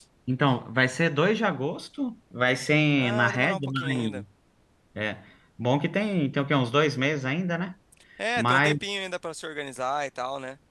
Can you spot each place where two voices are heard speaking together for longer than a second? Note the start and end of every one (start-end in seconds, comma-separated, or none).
2.9-4.2